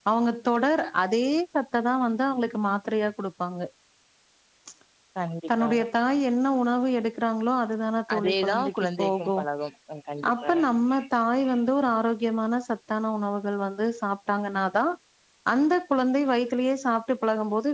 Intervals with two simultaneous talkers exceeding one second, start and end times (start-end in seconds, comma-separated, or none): 8.2-9.3